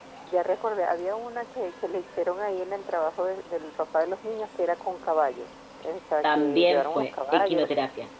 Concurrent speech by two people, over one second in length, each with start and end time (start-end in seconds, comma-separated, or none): 6.2-7.7